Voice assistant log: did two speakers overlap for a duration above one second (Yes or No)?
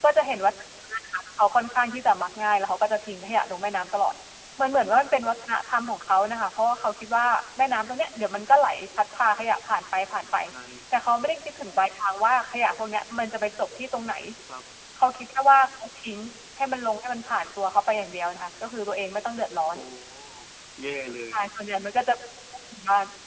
No